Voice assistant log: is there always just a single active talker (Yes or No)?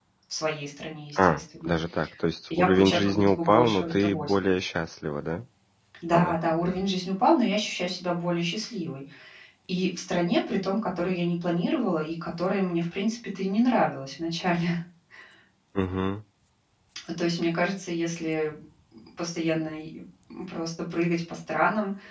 No